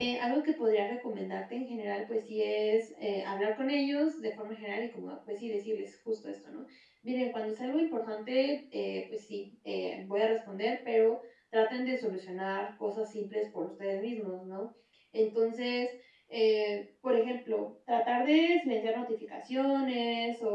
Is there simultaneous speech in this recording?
No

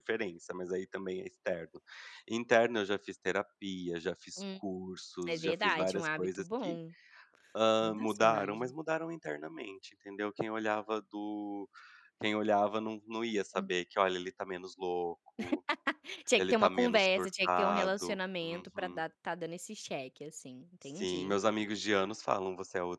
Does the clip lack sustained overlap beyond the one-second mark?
No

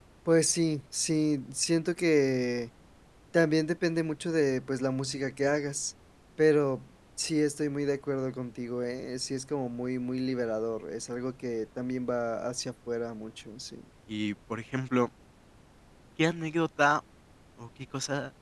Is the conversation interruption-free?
Yes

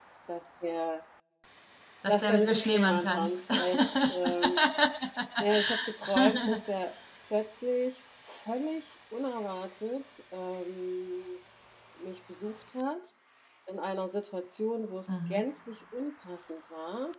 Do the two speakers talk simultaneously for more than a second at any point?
Yes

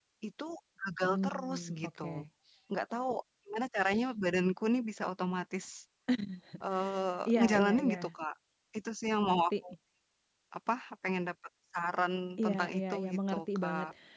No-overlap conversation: No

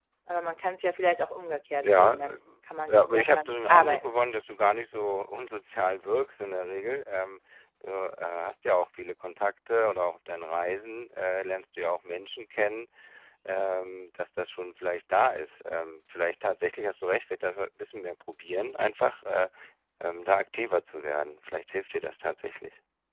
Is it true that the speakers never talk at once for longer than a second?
No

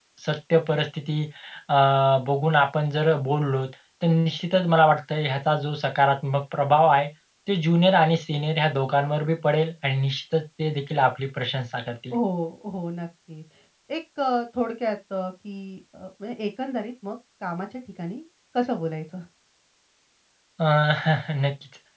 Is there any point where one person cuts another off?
No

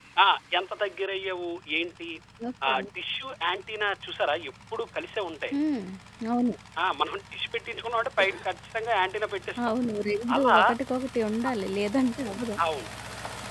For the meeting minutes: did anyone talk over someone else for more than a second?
No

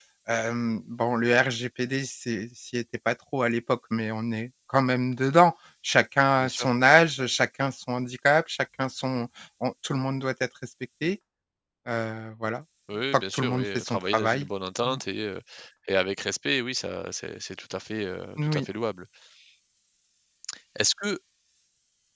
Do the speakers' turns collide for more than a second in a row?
Yes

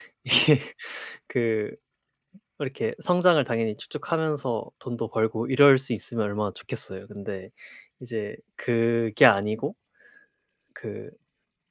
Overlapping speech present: No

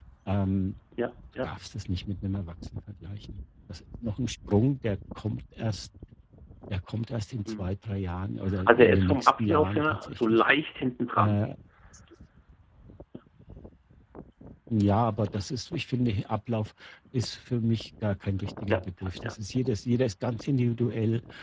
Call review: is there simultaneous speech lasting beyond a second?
Yes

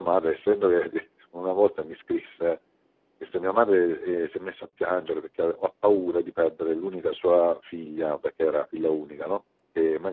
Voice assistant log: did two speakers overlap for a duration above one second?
No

